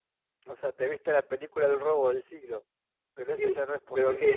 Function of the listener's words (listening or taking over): taking over